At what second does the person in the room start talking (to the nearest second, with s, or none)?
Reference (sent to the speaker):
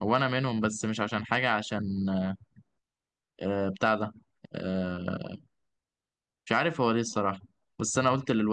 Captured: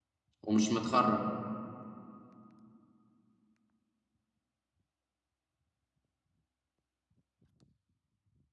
0 s